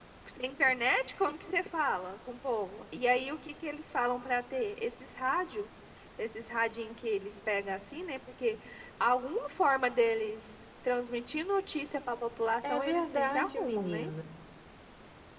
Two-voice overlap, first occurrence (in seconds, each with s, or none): 12.6 s